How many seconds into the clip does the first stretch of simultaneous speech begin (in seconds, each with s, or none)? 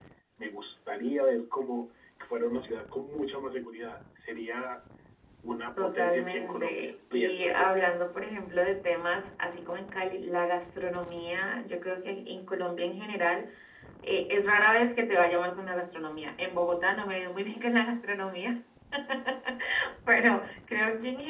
5.8 s